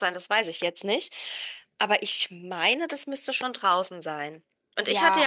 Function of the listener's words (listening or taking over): listening